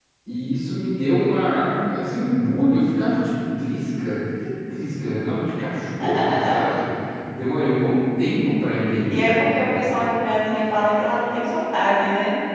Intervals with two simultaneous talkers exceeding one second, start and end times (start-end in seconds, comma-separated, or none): none